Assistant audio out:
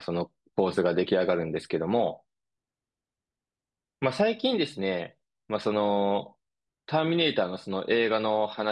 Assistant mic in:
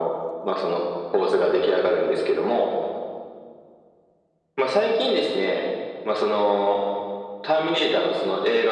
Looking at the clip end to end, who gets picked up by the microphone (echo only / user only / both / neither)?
echo only